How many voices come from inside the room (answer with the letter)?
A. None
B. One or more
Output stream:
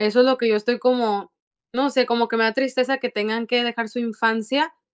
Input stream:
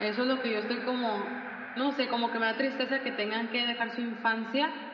A